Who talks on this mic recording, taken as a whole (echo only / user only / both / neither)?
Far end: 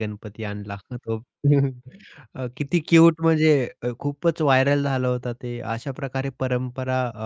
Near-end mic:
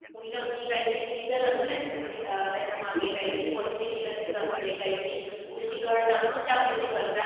both